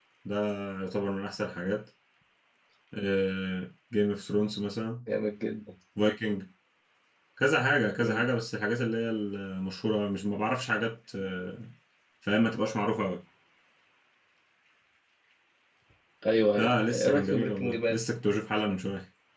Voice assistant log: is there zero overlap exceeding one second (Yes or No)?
No